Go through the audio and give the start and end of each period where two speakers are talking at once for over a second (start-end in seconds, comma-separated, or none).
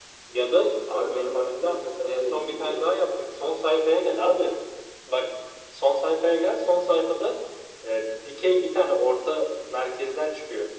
0.9-2.9